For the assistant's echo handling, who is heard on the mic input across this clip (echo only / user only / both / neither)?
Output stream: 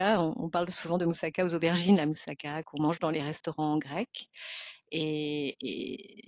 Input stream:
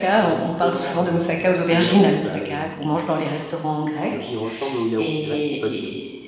both